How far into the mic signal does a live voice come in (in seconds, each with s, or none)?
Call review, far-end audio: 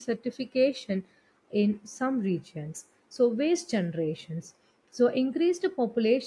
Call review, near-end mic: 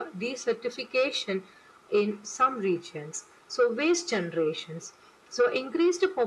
none